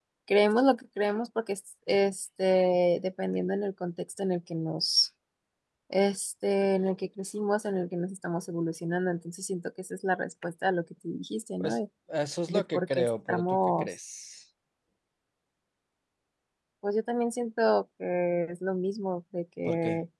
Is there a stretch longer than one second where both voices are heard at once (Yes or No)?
Yes